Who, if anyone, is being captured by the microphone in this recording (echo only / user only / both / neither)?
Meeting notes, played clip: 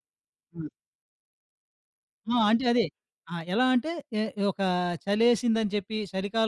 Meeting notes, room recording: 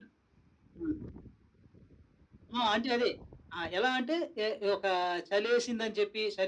echo only